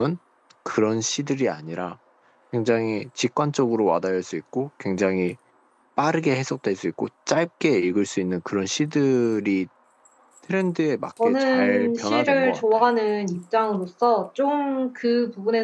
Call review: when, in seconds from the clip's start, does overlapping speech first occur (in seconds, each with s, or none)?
11.2 s